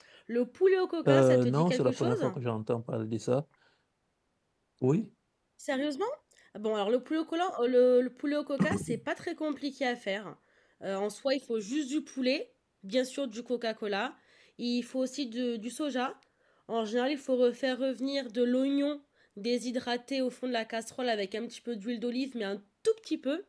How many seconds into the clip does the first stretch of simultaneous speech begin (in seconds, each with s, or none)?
1.1 s